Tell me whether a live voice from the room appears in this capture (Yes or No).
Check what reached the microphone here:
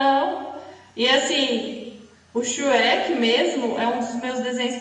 No